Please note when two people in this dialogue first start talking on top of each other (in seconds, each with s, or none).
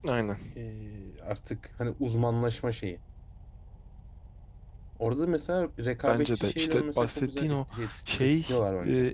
6.0 s